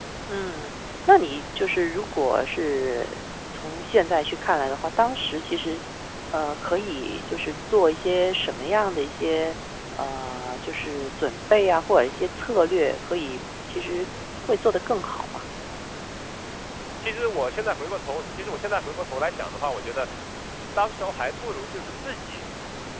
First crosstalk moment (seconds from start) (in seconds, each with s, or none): none